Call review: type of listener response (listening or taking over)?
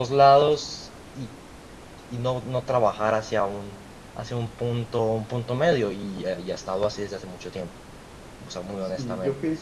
taking over